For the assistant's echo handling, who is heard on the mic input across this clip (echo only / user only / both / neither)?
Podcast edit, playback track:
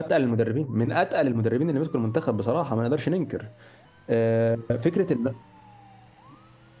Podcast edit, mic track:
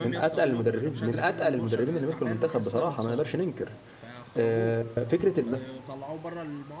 both